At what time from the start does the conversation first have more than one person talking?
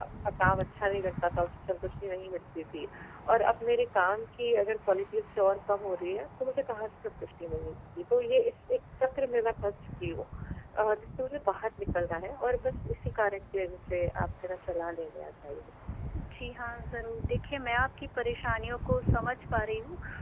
none

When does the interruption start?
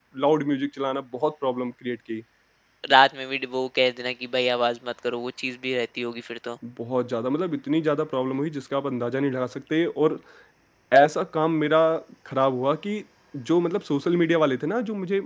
none

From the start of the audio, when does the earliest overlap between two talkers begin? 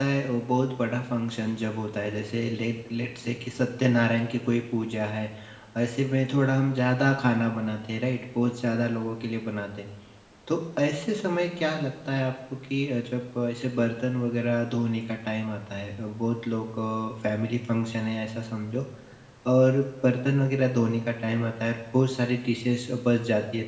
none

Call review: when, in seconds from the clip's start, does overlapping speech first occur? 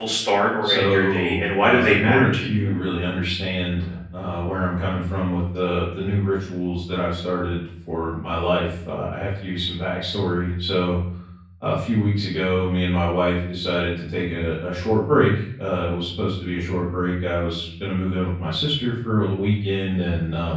0.6 s

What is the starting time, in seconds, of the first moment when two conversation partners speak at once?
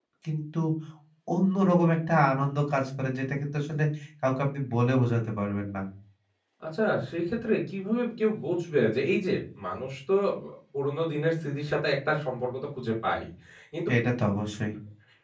none

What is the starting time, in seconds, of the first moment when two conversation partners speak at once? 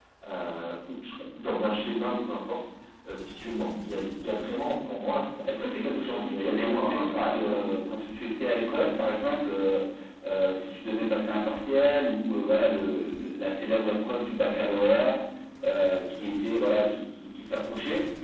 5.5 s

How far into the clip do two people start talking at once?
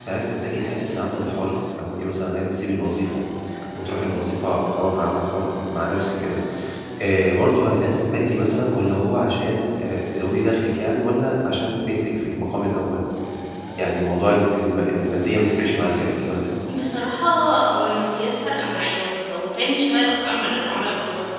none

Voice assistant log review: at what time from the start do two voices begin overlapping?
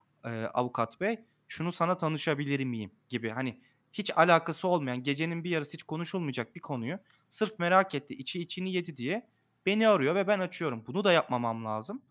none

